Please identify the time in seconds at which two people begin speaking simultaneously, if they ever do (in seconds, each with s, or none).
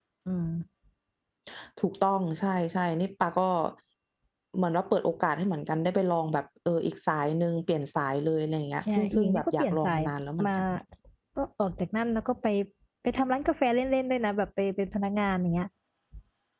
8.8 s